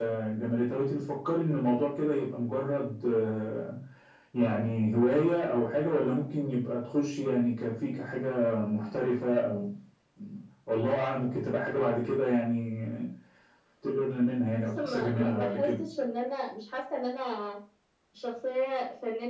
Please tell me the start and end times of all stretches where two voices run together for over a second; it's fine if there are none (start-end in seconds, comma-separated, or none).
14.6-15.8